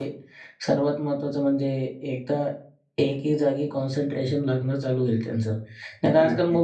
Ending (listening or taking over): listening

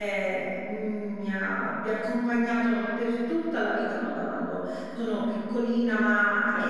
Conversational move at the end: listening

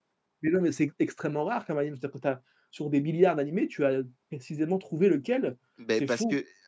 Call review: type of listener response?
taking over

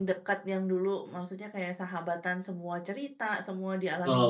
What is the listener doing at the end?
taking over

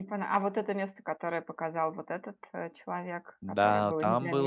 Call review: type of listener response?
taking over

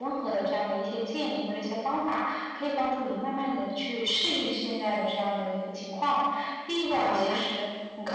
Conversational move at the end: listening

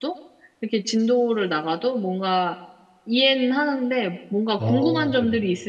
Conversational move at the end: listening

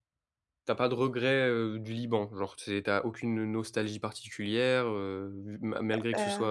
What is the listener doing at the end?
listening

